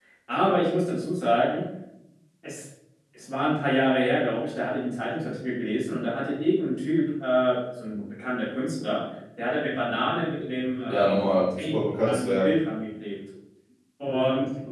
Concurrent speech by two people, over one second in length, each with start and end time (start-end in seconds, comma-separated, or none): 10.9-12.5